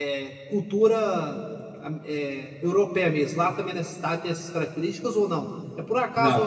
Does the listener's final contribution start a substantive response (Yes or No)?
No